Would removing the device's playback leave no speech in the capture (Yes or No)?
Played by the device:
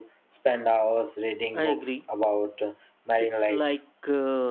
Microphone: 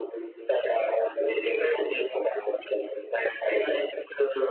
Yes